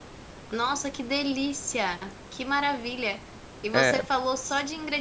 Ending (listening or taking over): listening